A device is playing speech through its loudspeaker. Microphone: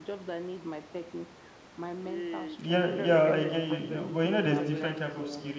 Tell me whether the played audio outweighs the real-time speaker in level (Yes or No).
No